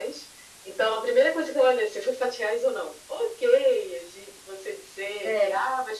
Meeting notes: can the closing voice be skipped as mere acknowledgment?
Yes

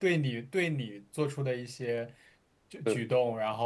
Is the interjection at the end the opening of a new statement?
No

